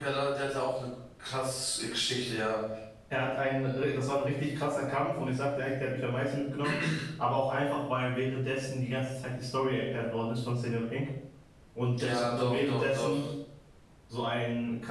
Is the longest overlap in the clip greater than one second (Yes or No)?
Yes